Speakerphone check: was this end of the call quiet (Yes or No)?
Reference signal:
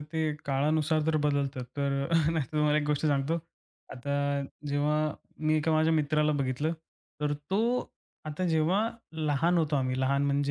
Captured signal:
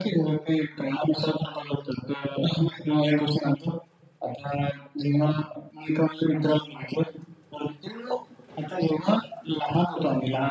Yes